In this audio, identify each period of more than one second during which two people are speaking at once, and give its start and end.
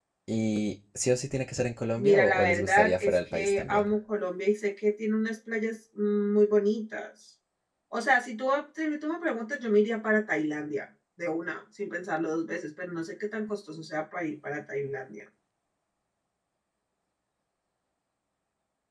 2.0-3.9

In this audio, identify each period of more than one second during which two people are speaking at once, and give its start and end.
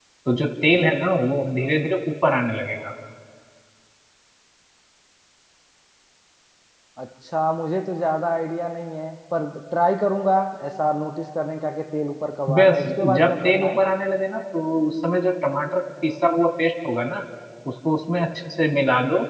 12.5-13.8

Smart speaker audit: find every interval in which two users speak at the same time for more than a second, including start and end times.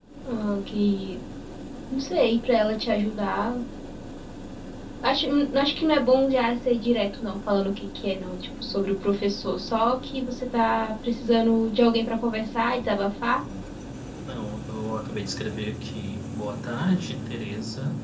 none

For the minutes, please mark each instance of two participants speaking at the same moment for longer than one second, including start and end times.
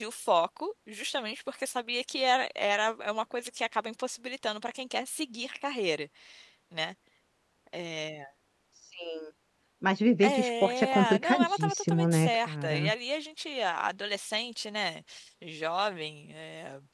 10.2-12.9

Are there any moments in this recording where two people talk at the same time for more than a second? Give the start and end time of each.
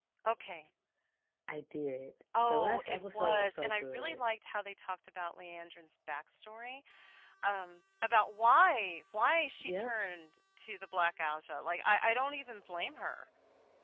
2.4-4.2

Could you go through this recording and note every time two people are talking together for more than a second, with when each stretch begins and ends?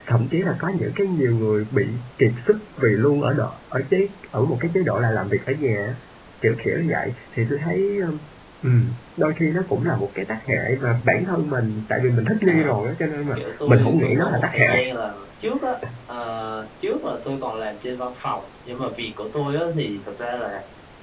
13.3-14.9

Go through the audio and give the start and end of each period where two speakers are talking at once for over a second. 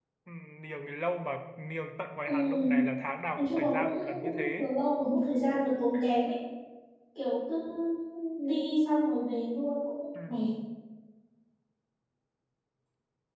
3.4-4.7

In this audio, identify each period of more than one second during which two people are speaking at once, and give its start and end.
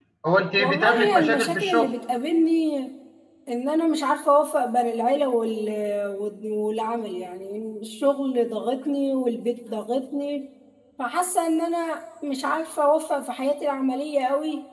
0.6-1.9

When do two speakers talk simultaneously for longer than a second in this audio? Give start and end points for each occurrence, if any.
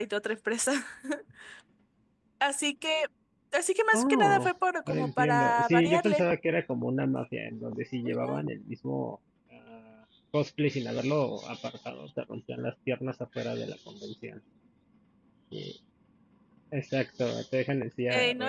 4.9-6.2

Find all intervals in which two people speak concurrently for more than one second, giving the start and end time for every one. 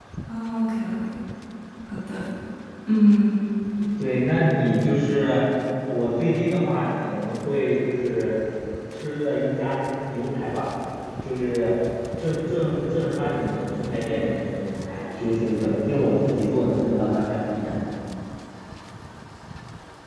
none

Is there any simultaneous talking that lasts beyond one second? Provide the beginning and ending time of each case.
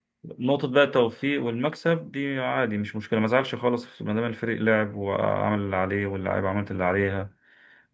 none

